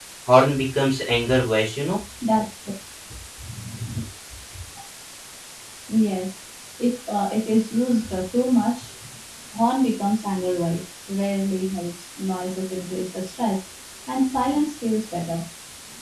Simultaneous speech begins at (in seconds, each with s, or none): none